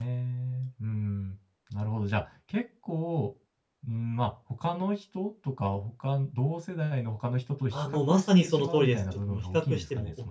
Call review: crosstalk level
present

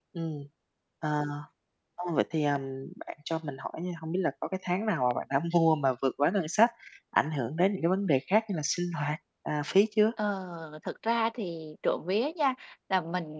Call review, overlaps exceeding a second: none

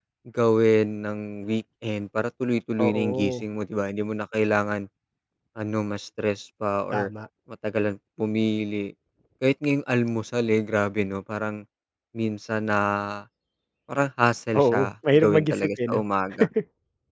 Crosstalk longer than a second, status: present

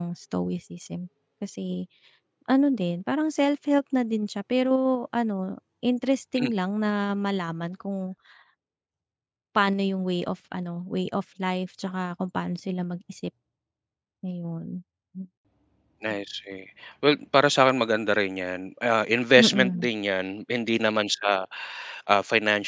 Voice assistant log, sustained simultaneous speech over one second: none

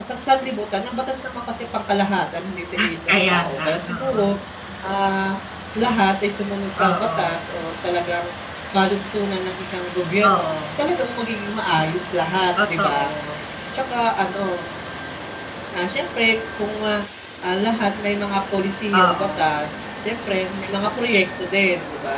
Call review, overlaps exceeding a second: present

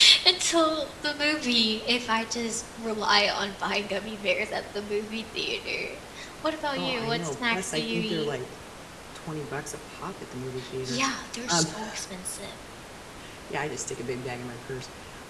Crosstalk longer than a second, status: present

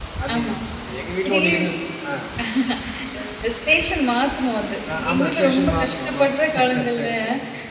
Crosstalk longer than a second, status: present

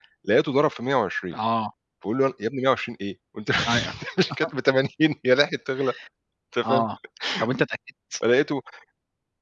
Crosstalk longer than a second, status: none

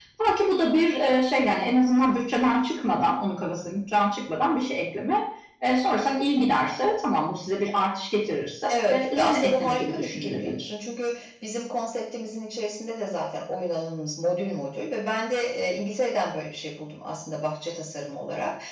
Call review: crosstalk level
present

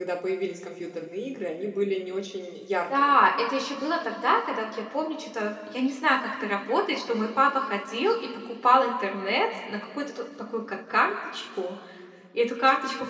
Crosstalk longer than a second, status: none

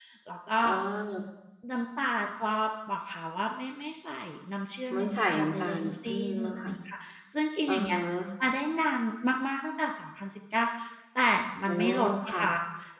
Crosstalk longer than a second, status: present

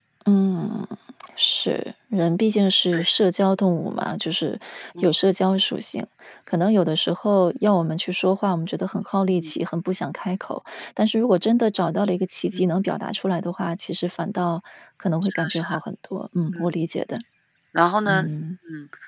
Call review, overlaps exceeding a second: none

